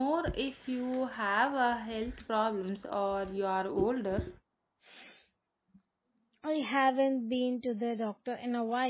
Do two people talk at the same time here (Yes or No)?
No